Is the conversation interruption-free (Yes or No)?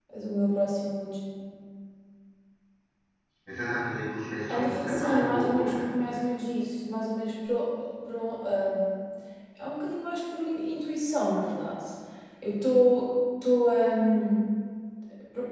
No